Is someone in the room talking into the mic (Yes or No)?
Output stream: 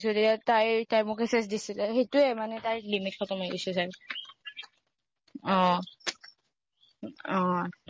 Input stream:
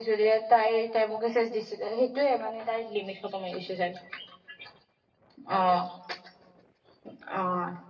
No